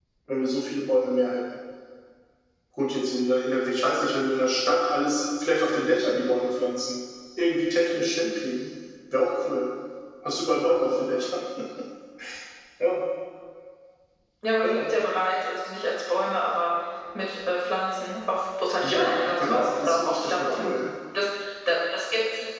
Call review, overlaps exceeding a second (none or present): present